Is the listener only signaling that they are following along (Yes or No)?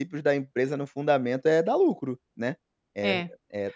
Yes